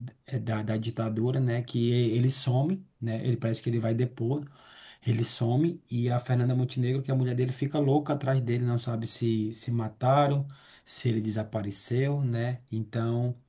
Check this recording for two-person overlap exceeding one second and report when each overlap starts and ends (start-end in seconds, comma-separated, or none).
none